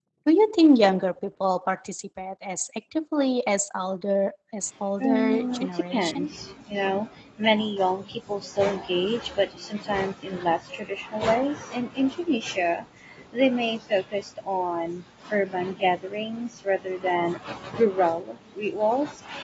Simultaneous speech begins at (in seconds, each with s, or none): 5.0 s